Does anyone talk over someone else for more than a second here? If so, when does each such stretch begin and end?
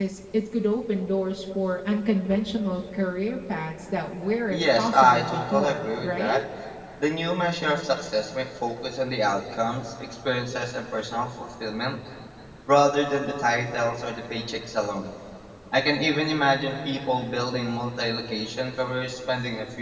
4.5-6.4

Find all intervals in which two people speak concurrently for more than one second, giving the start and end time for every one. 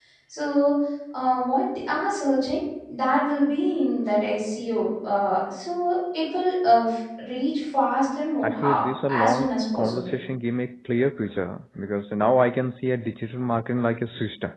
8.4-10.1

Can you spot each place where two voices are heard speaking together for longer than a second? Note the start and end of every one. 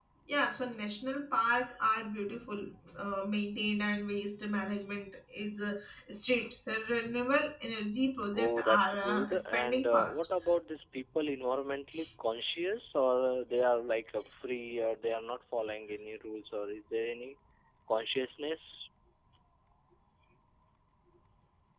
8.3-10.3

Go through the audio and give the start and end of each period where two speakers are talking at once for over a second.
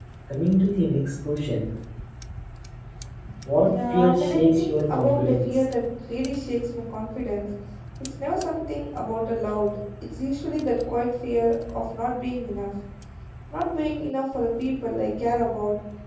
3.6-5.6

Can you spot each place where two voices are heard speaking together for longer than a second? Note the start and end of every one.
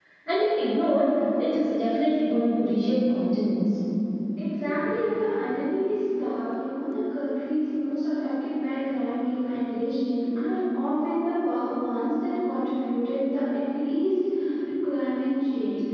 none

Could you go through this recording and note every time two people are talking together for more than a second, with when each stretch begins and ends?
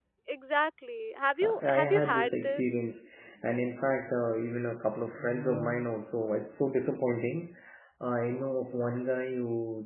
1.4-2.7

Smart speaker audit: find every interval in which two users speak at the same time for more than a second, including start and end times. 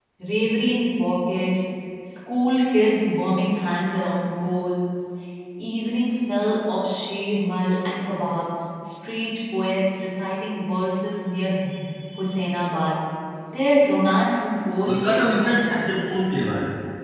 14.8-16.5

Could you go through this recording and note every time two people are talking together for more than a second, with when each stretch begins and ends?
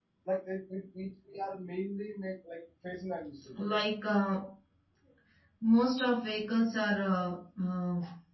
none

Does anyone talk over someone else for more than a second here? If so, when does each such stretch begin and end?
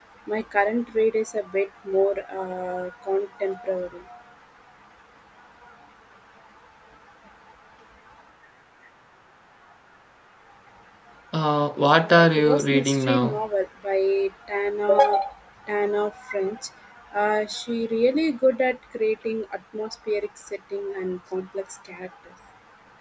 11.9-13.4

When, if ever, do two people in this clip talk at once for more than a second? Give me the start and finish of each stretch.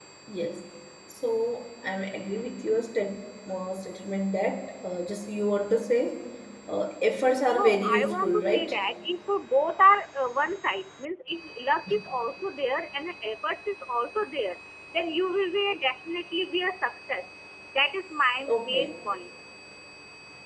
7.5-8.8

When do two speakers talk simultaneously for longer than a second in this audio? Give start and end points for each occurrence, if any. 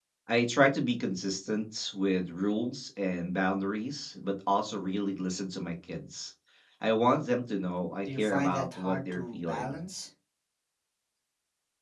8.1-9.8

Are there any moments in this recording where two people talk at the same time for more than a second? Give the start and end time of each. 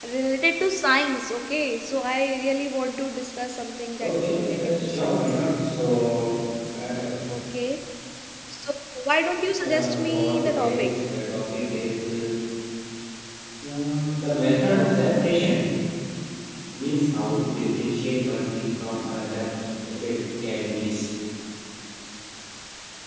4.0-5.4, 9.6-10.9

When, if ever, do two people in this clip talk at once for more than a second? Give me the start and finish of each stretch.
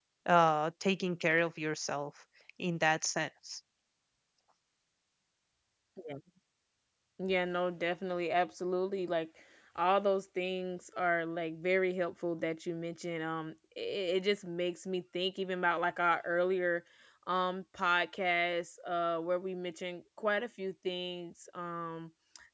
none

